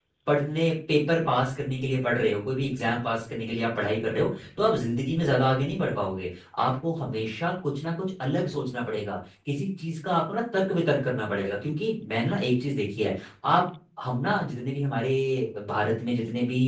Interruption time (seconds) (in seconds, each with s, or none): none